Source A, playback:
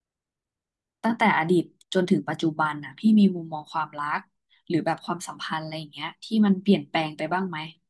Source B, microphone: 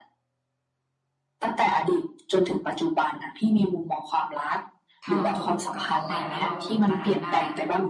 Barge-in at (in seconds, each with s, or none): 5.0 s